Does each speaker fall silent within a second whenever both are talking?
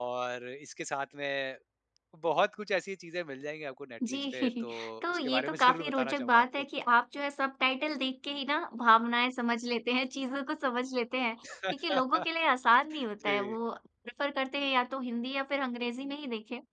No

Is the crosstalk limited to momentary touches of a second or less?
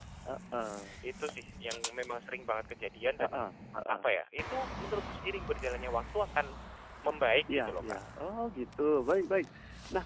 Yes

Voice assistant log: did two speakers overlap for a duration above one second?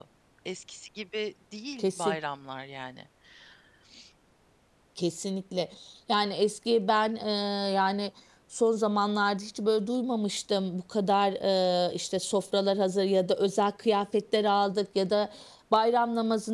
No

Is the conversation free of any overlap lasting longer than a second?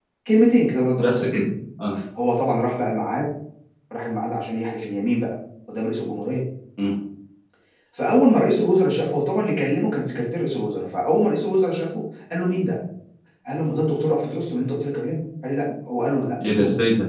Yes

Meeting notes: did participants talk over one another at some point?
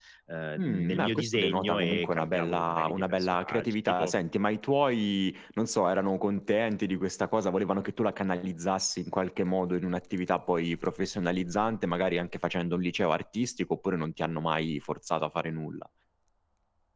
Yes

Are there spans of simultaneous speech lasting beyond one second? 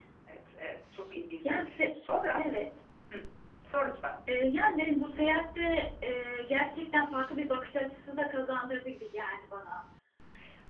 No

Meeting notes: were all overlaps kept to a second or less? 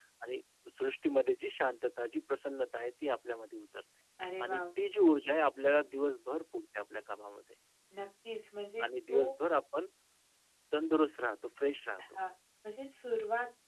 Yes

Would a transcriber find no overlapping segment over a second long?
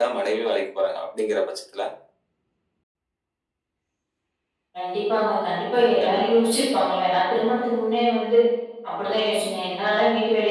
Yes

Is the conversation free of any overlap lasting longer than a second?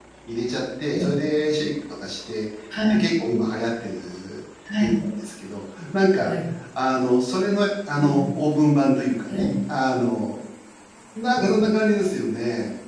Yes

